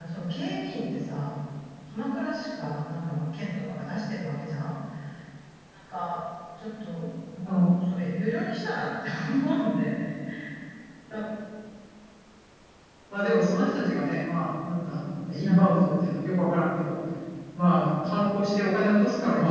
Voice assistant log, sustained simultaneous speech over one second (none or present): none